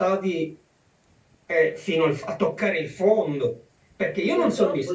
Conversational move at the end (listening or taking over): listening